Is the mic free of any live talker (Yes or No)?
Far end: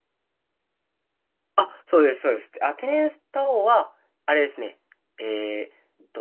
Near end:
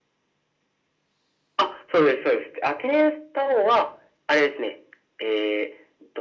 Yes